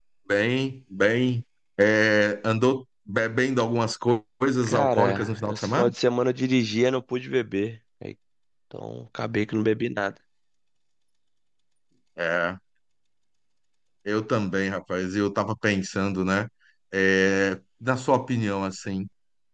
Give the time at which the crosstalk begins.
4.6 s

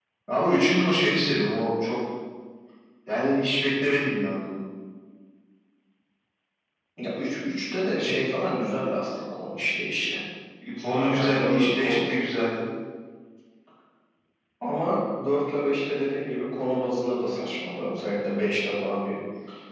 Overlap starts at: 10.9 s

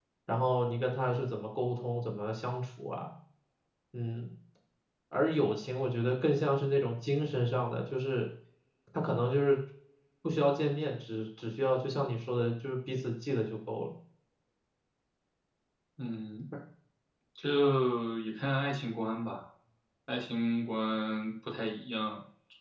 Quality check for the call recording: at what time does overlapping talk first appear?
none

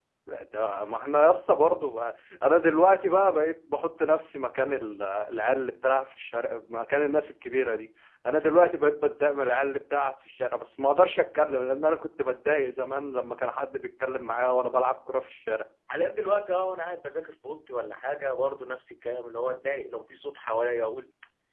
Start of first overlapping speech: none

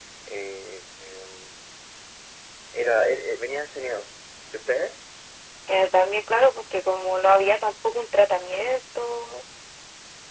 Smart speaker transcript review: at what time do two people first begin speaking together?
none

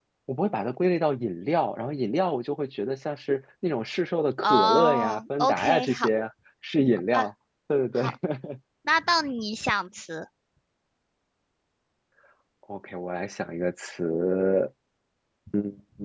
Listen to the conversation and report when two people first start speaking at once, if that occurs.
4.4 s

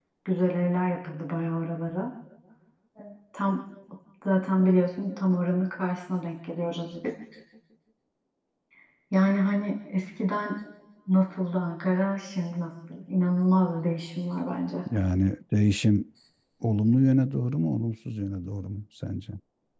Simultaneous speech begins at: none

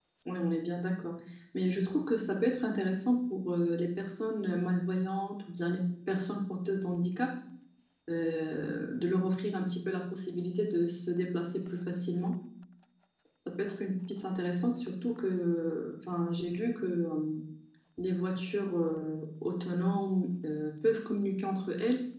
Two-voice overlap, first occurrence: none

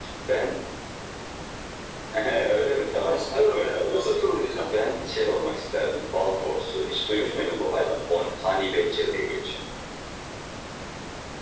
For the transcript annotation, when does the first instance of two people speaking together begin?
3.0 s

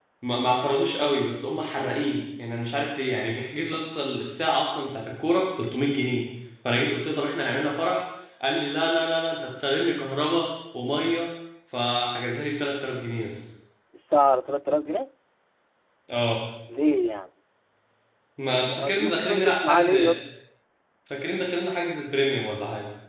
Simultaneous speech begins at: 18.5 s

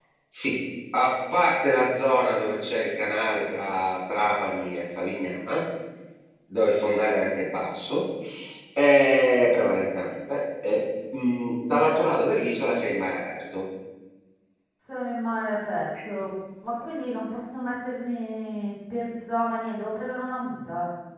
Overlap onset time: none

